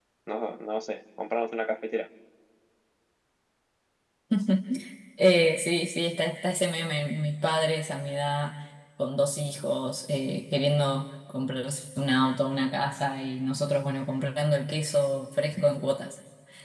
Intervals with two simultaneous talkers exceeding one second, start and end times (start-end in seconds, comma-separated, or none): none